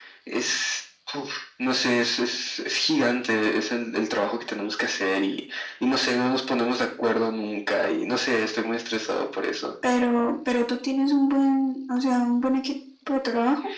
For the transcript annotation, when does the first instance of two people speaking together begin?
none

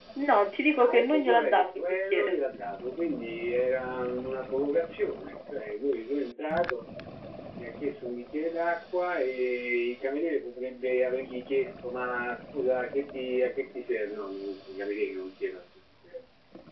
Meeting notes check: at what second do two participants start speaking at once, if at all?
0.9 s

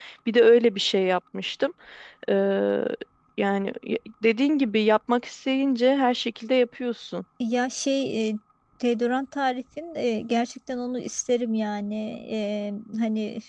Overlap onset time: none

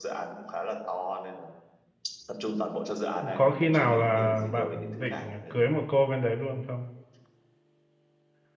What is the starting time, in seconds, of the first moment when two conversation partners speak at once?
3.2 s

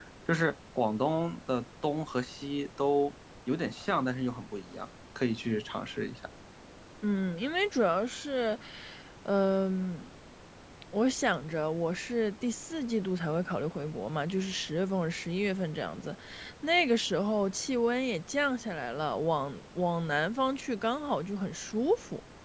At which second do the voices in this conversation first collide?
none

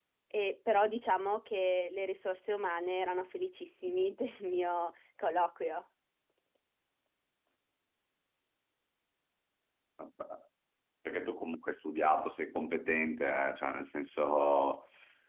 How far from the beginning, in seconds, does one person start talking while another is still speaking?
none

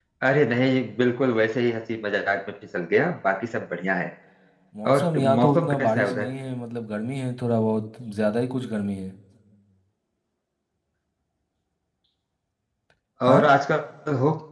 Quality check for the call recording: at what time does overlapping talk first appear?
4.9 s

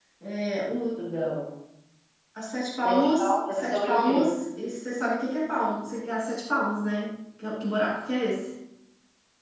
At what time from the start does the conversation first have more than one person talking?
2.8 s

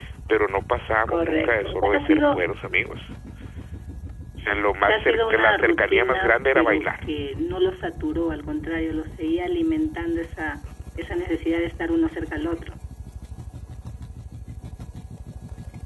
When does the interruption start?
1.1 s

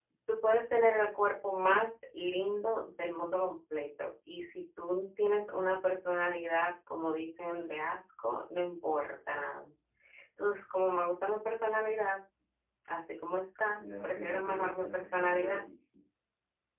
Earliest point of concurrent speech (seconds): 13.8 s

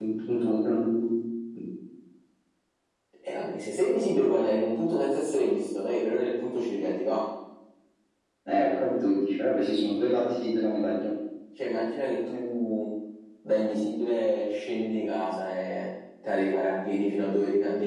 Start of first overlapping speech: none

